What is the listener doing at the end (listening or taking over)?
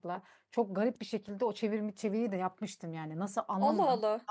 listening